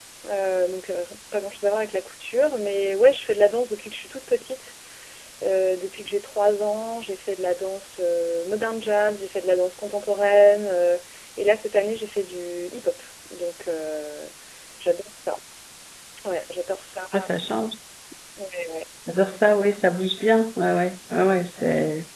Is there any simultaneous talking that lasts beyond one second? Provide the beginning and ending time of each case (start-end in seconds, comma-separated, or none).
none